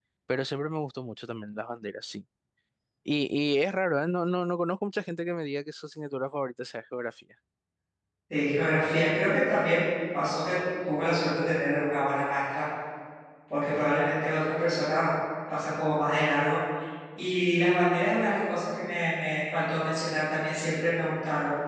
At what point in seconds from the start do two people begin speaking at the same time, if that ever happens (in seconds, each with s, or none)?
none